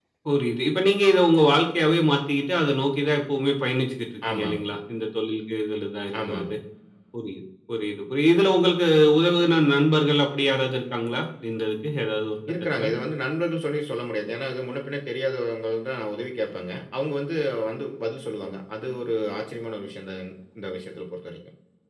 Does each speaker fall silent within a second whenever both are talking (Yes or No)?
Yes